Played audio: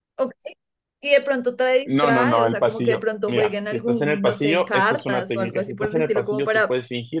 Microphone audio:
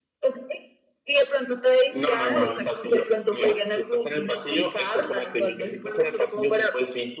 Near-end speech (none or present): none